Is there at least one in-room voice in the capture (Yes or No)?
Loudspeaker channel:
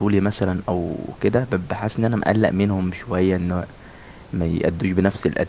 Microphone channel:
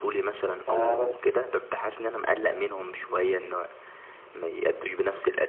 Yes